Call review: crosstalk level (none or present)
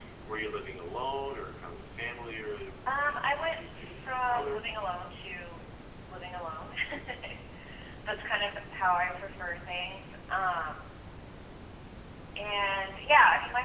present